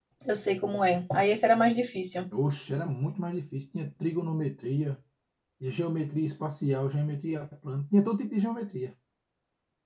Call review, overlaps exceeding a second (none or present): none